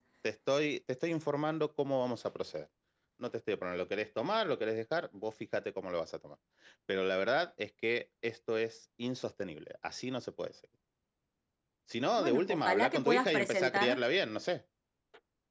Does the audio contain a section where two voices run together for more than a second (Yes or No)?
Yes